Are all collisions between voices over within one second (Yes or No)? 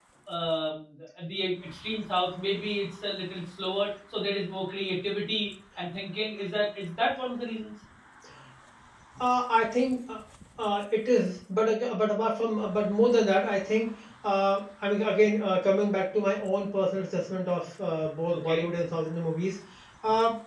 Yes